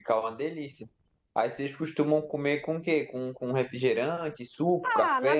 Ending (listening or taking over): taking over